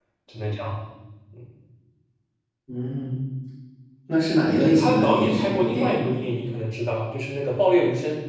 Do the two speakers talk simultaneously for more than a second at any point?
Yes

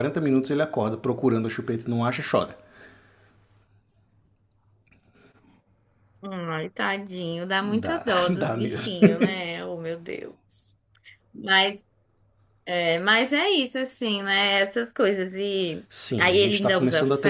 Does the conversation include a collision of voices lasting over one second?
Yes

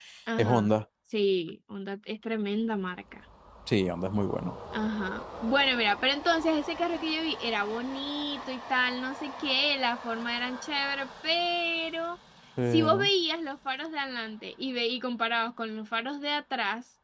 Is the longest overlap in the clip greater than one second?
No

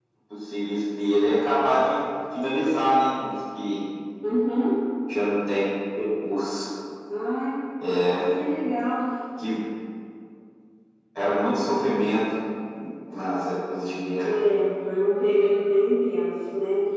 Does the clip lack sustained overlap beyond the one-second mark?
Yes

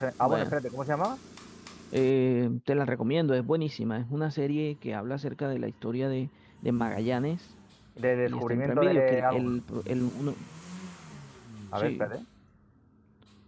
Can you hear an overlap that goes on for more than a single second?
Yes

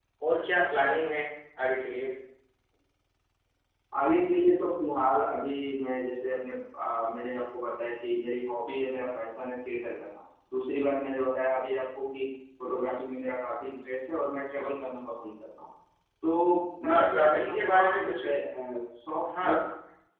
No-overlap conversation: No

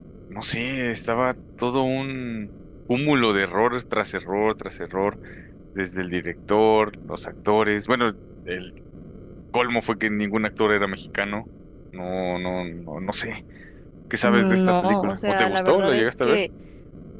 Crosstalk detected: Yes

